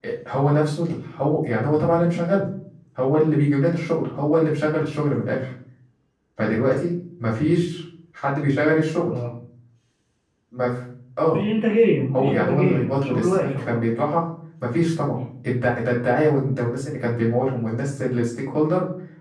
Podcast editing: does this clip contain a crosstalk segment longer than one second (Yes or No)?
Yes